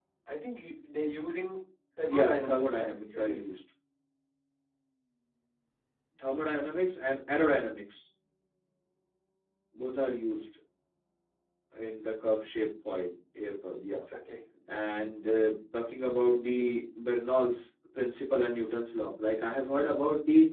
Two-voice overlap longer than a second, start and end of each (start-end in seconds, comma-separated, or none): 2.1-3.5